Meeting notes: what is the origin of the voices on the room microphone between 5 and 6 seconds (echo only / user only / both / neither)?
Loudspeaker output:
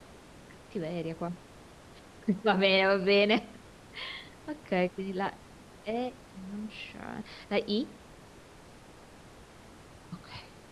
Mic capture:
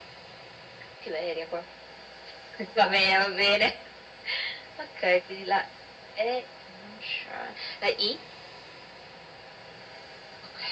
echo only